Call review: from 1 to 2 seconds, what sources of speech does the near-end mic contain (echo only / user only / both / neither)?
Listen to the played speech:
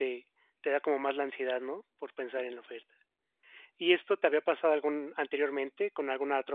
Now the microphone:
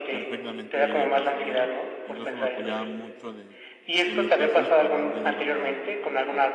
both